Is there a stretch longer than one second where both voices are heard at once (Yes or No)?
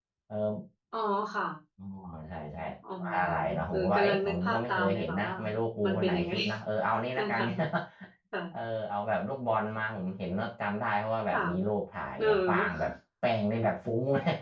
Yes